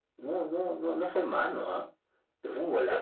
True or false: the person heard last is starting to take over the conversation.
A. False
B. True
B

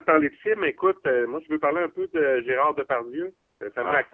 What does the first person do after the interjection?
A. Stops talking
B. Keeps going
B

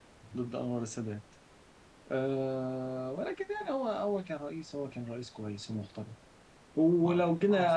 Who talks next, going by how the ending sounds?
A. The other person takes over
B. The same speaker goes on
B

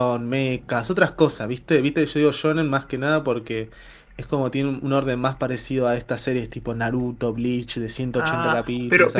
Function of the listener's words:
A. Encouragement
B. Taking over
B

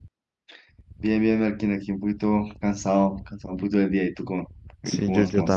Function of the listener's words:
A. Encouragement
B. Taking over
B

